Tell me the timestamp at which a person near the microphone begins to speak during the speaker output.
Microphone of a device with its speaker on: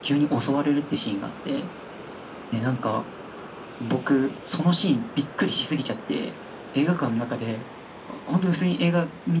none

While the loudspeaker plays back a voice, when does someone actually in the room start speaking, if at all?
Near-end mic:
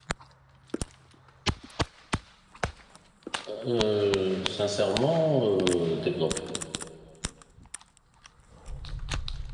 3.5 s

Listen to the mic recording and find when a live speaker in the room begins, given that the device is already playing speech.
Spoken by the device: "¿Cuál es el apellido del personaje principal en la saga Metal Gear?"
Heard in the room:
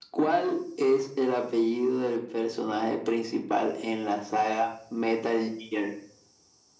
none

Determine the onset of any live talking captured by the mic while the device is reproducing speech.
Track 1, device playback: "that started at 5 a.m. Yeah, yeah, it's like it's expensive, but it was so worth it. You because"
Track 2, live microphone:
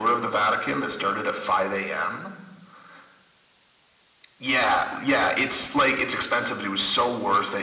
none

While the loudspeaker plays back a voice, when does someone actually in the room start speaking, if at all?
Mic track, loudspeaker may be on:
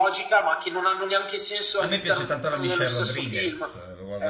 1.8 s

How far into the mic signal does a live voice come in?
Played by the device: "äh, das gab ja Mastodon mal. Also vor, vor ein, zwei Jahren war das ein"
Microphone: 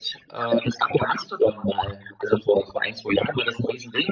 none

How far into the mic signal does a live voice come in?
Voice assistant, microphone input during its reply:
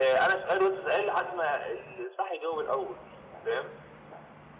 none

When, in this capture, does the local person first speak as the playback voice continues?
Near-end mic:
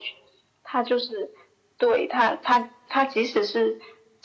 none

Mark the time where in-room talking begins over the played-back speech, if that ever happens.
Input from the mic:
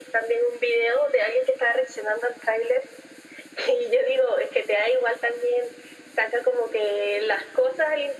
none

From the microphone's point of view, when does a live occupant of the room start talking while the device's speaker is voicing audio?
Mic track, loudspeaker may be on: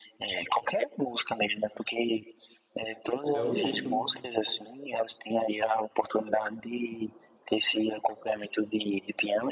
3.3 s

